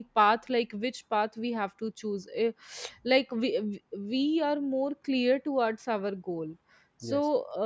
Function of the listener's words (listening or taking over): listening